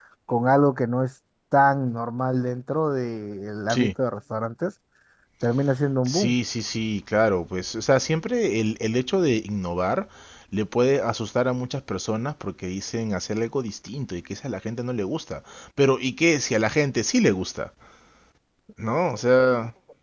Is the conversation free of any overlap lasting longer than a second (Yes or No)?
Yes